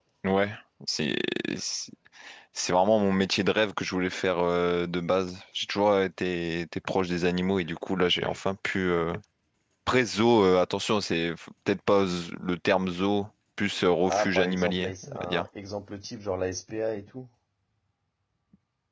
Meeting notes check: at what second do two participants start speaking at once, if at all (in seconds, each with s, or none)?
14.1 s